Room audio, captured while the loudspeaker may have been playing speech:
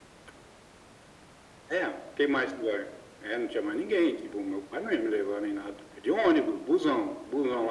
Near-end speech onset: none

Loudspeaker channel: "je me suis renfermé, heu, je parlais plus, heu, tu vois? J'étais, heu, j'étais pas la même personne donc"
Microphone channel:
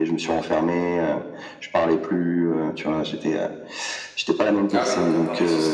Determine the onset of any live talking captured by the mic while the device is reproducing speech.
4.7 s

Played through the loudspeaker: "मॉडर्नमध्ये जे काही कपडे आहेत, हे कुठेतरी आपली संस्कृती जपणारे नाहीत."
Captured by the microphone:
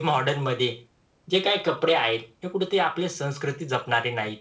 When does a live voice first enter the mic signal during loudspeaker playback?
none

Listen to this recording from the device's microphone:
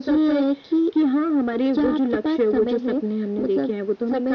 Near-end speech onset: none

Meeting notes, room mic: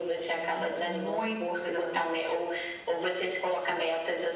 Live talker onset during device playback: none

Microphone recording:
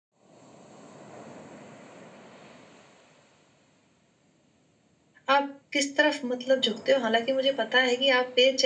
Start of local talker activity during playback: 5.3 s

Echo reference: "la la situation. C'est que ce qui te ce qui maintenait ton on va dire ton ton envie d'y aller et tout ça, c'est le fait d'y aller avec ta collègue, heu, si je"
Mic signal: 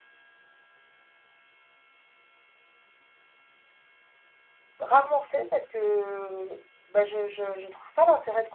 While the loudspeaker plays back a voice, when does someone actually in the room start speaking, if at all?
4.8 s

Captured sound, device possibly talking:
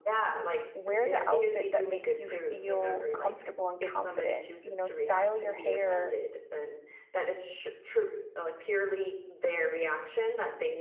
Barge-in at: 0.7 s

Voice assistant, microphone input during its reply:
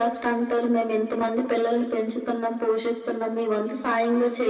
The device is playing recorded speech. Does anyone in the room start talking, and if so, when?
none

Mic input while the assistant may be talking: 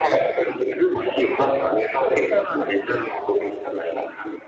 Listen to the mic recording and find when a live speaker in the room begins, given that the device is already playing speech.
none

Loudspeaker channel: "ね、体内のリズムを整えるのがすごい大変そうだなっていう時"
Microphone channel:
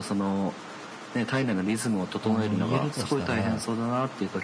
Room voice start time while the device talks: 2.2 s

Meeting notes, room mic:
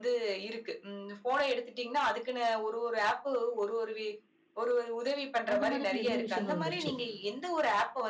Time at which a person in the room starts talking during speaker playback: 5.5 s

